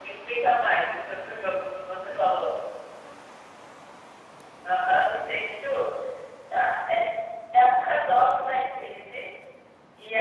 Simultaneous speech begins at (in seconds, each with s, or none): none